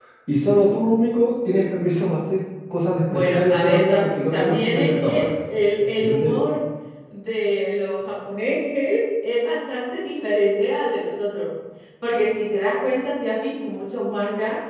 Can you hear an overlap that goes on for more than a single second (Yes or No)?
Yes